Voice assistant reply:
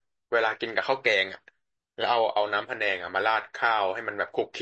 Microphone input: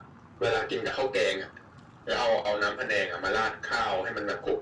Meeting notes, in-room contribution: none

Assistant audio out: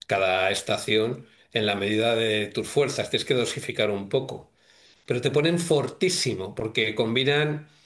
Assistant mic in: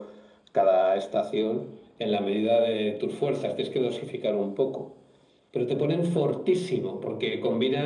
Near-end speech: none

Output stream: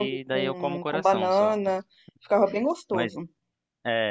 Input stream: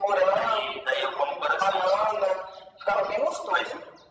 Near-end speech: none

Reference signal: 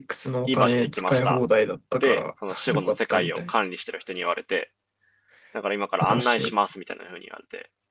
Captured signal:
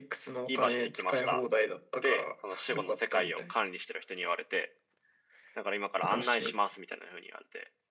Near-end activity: none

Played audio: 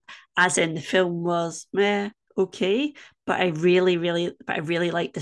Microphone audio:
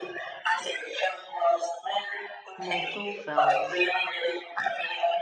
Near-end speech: present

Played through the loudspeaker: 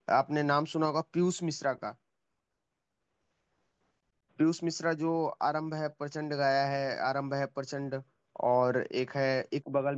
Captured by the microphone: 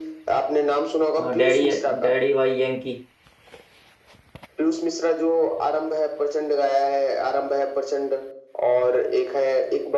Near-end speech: present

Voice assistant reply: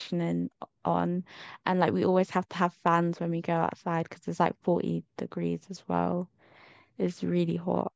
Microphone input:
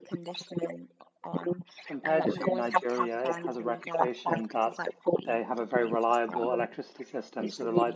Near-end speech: present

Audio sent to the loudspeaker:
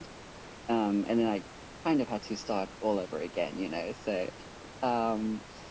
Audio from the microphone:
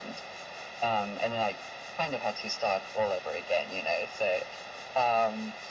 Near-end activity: none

